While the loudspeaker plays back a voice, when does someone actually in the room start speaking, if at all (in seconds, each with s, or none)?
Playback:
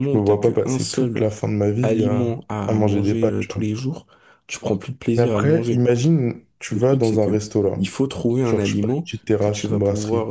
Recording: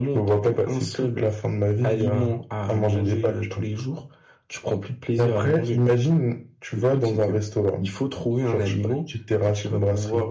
none